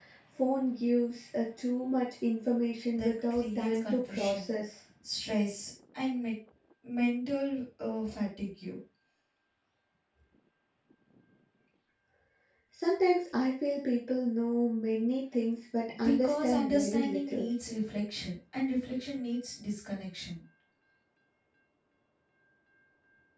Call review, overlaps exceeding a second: present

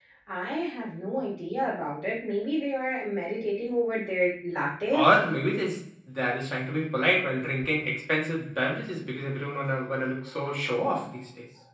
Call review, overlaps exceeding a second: none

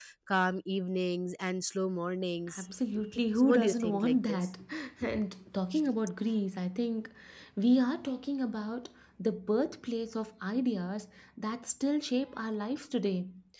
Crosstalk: present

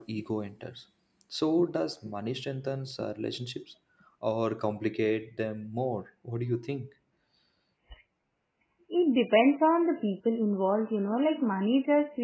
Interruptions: none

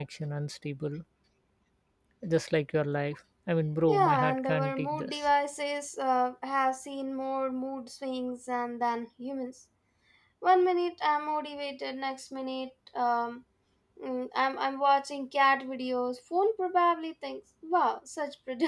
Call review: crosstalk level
present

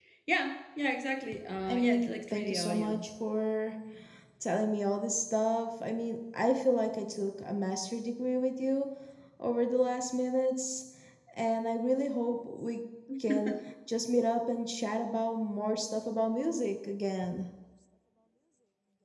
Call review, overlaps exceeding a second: present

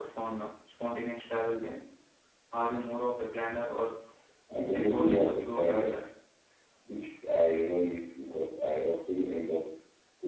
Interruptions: present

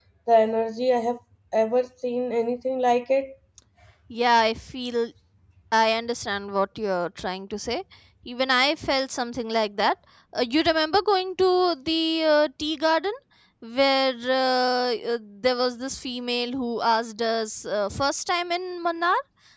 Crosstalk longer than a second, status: none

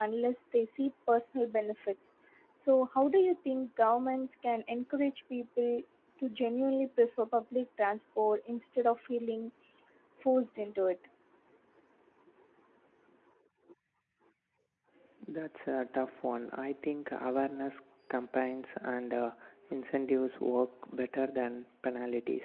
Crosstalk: none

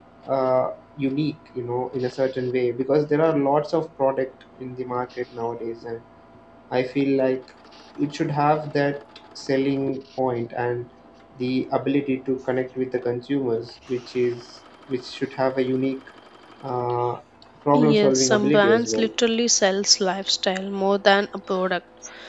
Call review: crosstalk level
present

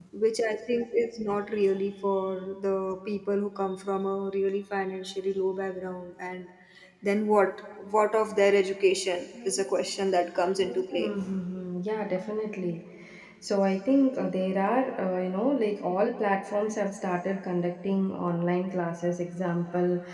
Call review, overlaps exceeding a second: none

